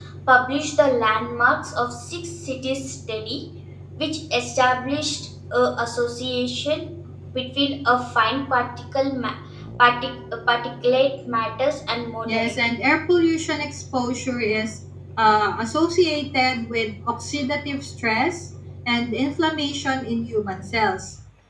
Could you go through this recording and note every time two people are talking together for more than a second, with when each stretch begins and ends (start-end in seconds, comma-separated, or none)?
none